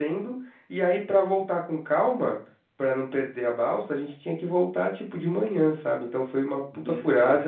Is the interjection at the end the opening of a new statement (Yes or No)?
No